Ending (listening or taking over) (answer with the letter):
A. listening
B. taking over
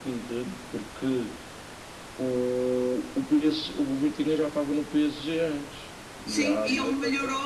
B